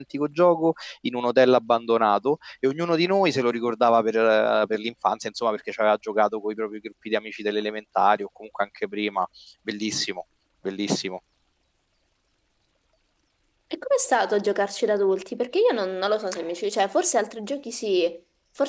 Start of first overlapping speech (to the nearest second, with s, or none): none